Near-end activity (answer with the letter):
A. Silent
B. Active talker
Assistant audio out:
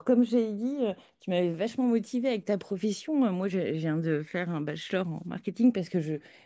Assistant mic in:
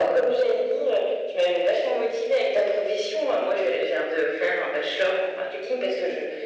A